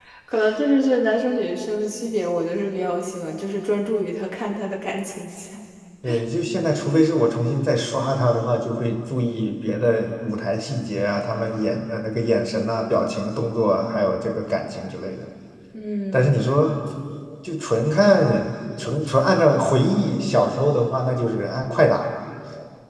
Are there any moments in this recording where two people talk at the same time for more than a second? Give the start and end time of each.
none

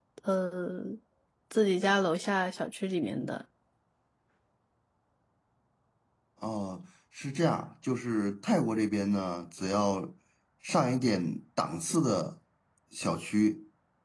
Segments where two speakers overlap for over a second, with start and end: none

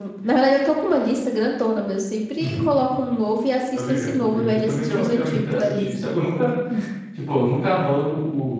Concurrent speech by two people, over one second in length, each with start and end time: 3.7-5.9

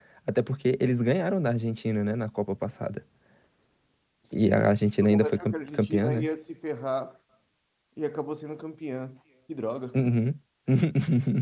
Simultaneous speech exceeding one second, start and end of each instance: 5.0-6.3

